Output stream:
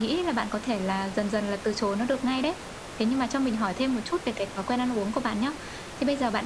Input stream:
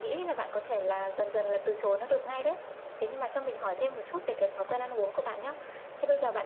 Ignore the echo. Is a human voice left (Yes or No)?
No